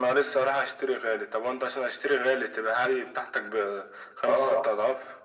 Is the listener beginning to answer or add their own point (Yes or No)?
Yes